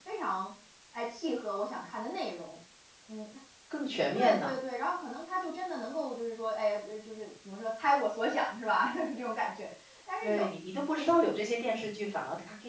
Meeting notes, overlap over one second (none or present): none